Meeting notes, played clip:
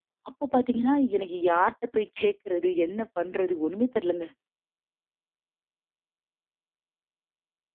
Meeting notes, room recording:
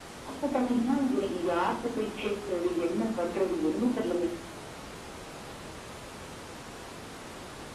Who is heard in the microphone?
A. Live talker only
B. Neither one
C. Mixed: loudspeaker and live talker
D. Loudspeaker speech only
D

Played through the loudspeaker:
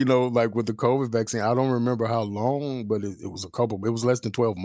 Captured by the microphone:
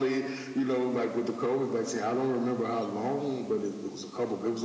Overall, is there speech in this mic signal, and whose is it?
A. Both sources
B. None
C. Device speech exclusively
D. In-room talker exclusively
C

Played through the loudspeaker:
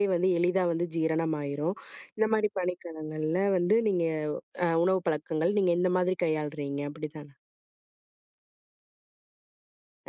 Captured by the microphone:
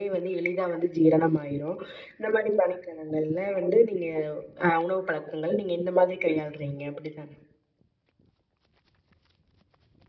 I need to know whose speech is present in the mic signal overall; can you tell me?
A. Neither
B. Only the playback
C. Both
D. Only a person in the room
B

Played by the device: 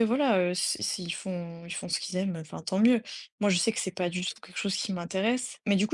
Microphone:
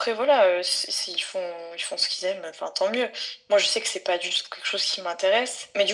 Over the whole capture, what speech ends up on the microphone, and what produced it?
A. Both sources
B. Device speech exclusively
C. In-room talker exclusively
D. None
B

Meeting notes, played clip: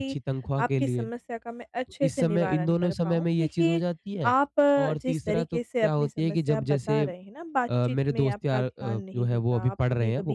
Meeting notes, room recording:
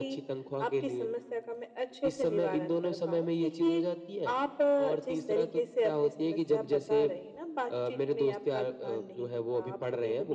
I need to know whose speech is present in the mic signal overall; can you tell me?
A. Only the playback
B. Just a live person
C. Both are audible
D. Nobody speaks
A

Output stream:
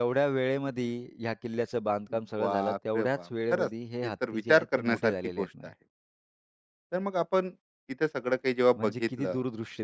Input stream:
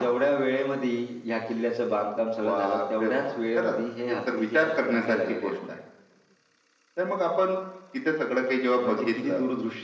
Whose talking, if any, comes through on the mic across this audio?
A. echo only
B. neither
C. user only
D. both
A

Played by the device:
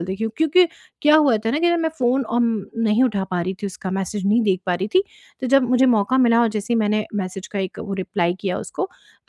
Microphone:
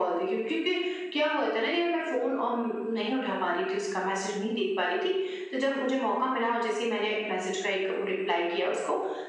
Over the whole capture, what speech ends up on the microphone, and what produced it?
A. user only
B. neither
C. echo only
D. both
C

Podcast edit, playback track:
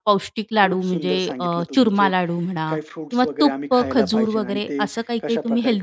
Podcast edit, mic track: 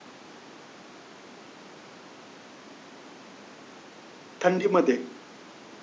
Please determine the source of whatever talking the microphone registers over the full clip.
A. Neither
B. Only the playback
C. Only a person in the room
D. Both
C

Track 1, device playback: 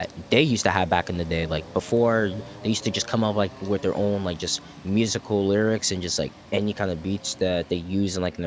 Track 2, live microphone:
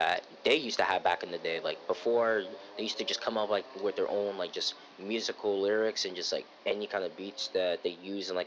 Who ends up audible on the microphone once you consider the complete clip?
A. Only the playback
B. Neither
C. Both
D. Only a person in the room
A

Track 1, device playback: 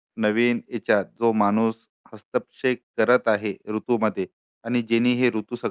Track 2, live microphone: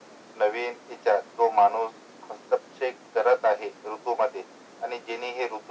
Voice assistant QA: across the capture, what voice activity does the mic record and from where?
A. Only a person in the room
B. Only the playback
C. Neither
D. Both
B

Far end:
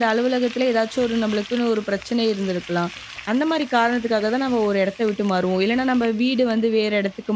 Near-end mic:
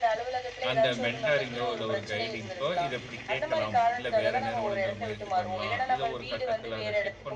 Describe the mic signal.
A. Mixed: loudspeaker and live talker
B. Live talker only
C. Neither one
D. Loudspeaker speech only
A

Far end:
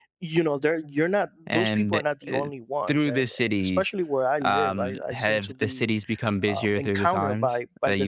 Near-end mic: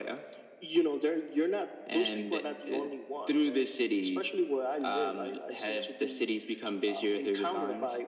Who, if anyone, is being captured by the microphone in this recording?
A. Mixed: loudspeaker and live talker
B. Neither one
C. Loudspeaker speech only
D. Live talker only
C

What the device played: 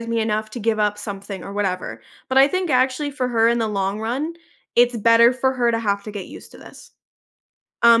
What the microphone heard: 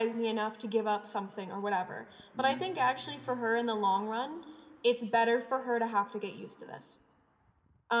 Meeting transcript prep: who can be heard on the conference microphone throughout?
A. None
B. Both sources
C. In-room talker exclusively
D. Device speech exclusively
B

